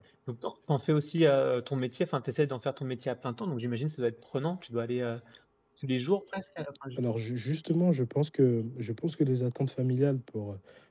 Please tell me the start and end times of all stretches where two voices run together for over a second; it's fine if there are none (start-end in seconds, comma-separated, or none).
none